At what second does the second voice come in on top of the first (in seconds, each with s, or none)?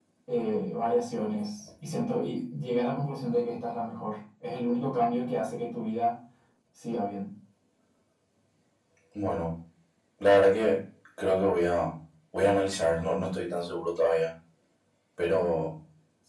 none